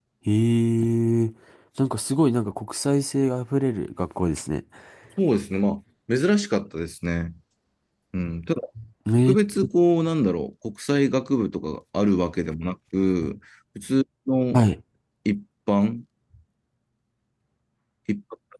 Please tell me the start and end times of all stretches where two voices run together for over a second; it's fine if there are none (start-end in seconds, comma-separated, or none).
none